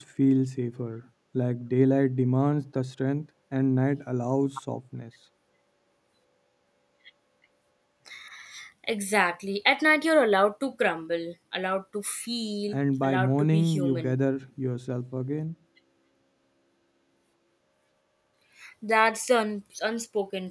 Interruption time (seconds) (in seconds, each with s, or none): 12.7 s